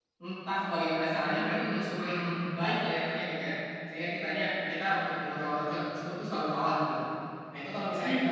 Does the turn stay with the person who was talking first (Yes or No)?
Yes